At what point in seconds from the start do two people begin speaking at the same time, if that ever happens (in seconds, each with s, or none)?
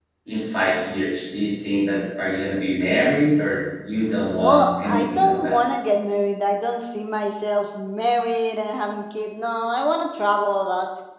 4.4 s